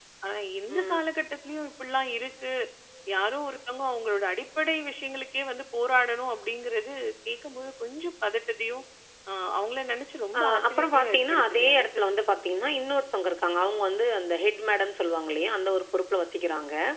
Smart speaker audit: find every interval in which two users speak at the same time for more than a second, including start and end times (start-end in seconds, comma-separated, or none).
10.4-11.9